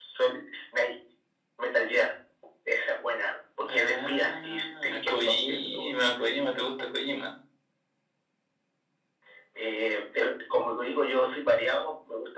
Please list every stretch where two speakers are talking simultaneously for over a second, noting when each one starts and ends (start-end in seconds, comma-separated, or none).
3.7-6.0